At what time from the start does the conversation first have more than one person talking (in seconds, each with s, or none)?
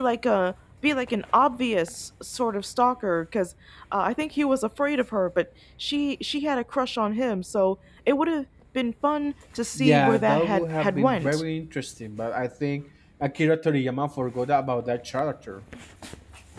9.8 s